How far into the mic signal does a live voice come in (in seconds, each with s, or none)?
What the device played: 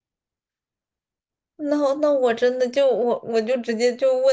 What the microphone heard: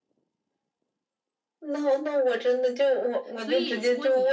3.4 s